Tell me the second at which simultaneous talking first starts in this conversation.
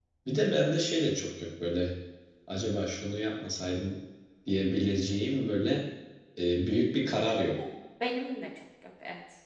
none

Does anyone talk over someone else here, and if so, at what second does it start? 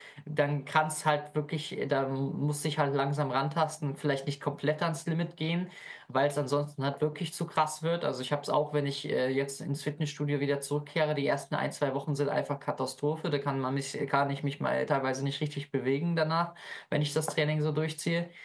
none

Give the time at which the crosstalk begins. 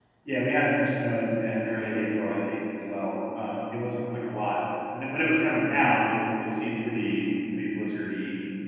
none

